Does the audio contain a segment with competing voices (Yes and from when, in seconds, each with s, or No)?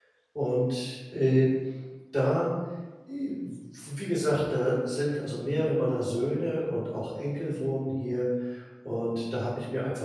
No